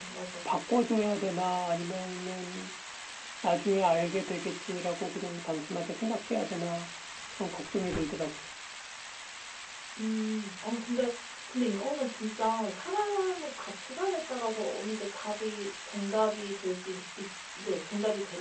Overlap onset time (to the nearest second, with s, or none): none